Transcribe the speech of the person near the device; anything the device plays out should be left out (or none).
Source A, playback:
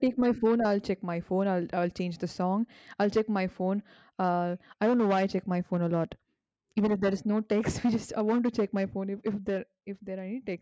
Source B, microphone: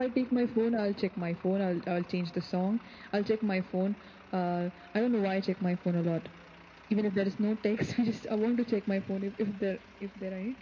none